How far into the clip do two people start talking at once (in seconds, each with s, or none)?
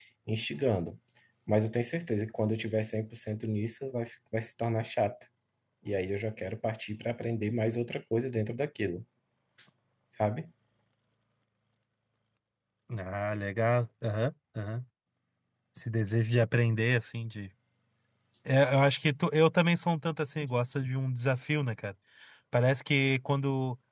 none